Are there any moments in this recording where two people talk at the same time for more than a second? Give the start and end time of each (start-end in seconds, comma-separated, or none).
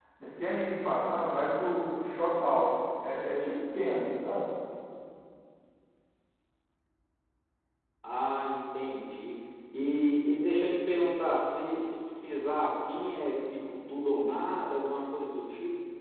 none